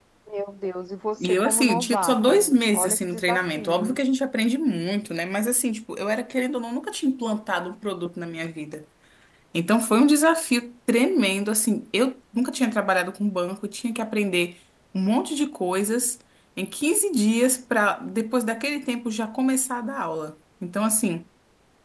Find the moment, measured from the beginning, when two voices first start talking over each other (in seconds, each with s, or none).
1.2 s